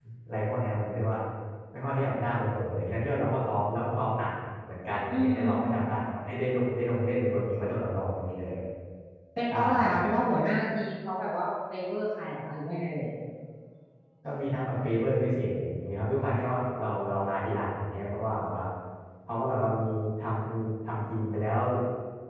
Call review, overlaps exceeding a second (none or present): none